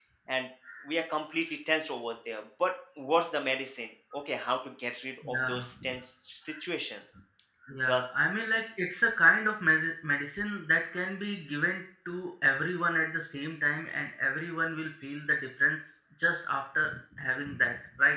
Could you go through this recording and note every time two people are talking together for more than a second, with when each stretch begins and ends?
none

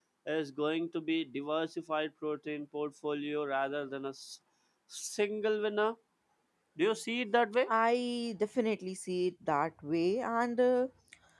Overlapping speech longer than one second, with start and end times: none

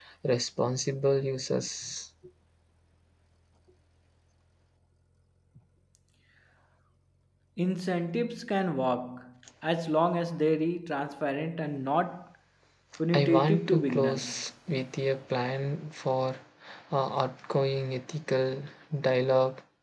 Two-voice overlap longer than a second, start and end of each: 13.1-14.4

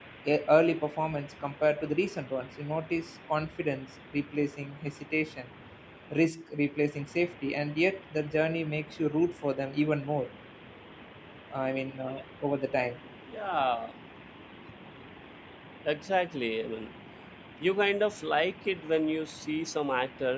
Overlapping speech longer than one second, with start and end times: none

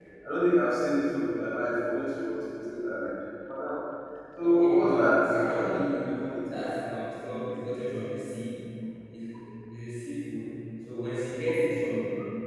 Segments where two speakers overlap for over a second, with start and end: 4.4-6.6

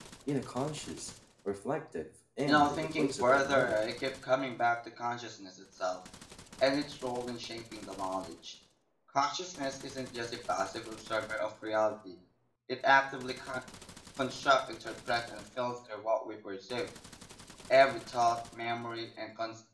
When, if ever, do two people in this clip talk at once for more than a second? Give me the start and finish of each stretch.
2.5-3.8

